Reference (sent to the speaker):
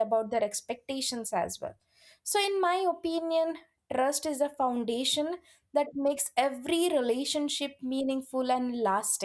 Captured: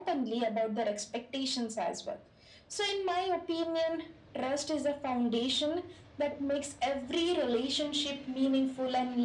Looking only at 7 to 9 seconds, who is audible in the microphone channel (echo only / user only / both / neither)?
echo only